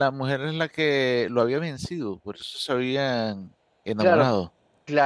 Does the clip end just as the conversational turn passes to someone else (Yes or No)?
Yes